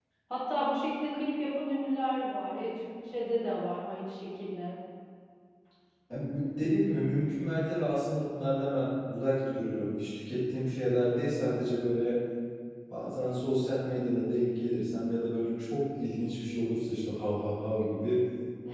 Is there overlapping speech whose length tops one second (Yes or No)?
No